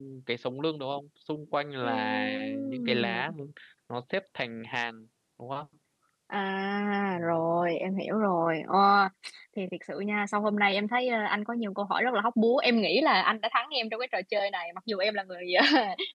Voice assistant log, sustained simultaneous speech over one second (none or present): present